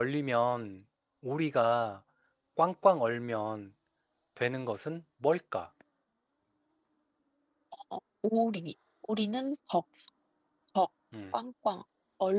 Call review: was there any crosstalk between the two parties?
No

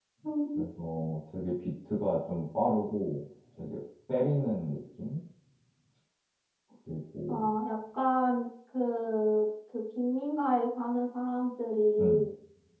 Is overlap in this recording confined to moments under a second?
Yes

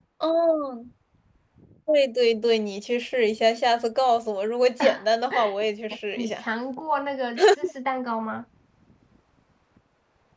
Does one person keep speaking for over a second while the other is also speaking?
No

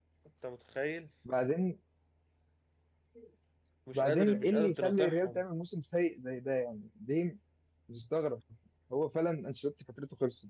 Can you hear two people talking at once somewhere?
Yes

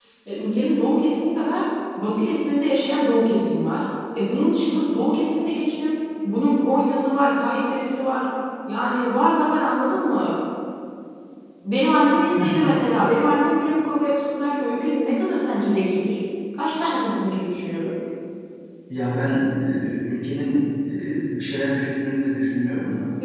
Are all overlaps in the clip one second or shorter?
Yes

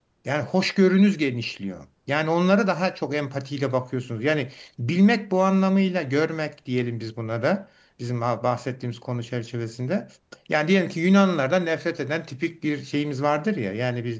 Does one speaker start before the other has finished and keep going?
No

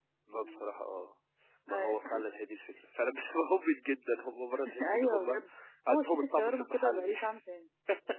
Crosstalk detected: Yes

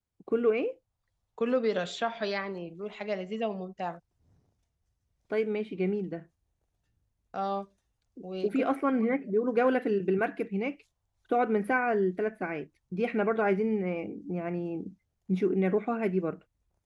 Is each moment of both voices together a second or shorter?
Yes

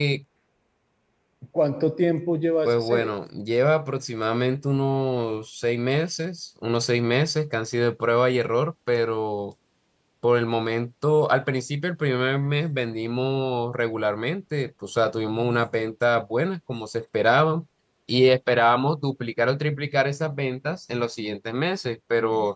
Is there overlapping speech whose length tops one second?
No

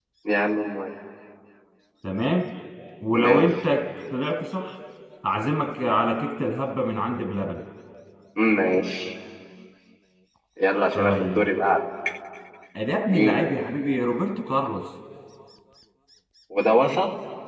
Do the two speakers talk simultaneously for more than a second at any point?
No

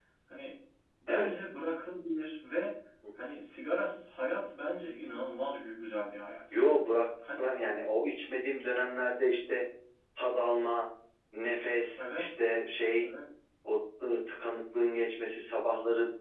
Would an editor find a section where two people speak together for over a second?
No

